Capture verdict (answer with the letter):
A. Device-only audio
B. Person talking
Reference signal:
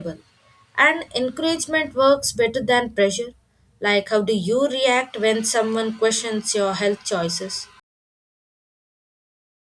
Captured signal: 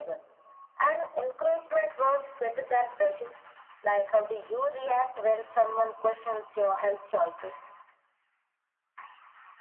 A